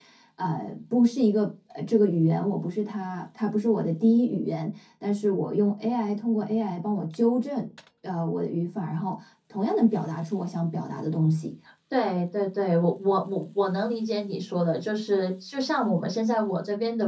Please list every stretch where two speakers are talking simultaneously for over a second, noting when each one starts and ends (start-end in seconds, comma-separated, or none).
none